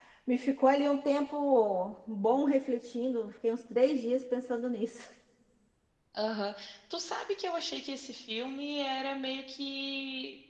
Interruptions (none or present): none